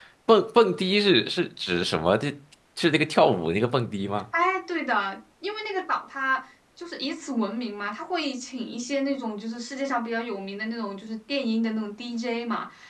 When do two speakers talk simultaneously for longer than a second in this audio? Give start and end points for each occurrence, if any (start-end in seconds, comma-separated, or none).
none